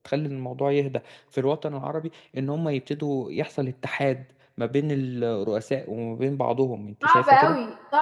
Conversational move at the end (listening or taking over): taking over